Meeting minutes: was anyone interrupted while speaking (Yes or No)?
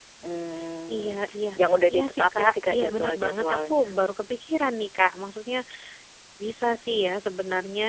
Yes